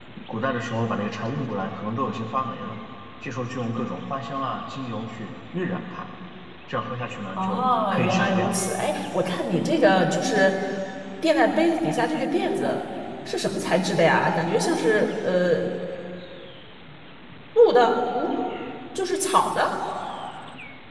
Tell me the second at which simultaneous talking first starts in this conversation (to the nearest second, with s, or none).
7 s